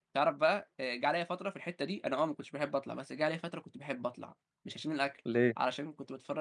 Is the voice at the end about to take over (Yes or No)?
No